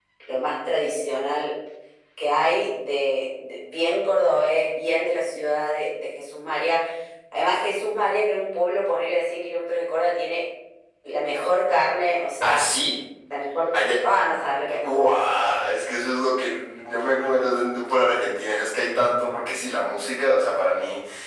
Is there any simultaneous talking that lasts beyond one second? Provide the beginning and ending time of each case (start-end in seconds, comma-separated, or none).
none